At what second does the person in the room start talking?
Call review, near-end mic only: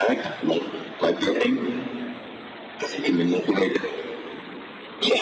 none

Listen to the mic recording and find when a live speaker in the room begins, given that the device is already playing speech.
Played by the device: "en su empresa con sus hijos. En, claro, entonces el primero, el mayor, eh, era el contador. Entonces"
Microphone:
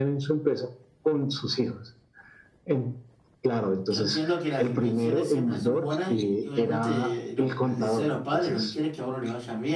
4 s

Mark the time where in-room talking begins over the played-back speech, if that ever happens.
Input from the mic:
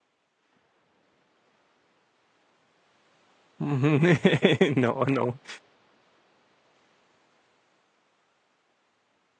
4 s

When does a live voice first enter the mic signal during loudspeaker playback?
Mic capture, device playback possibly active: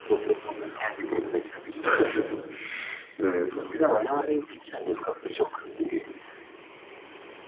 2 s

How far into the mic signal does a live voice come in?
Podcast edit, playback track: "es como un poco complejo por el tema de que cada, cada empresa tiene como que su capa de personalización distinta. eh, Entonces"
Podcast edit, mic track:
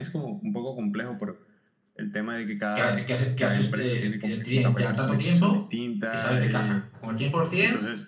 3 s

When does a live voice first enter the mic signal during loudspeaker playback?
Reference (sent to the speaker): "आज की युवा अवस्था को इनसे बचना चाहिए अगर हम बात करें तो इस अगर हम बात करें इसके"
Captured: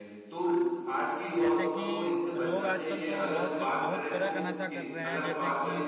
1 s

